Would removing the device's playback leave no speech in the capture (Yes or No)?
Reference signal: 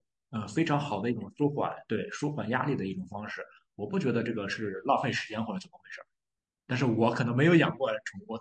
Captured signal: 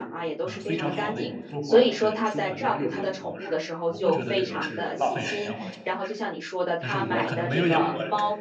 No